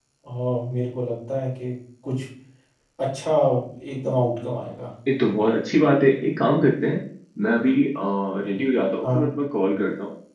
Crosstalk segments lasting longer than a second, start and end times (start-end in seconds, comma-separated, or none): none